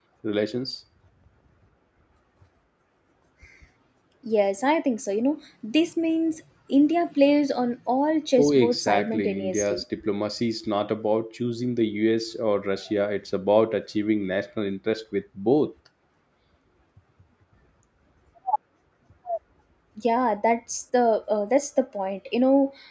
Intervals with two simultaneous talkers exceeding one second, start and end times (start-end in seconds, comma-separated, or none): 8.4-9.8